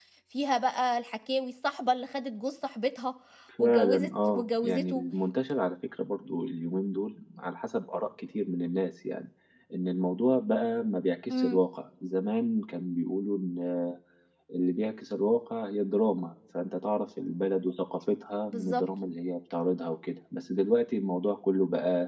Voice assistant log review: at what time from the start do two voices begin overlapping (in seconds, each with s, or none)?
3.6 s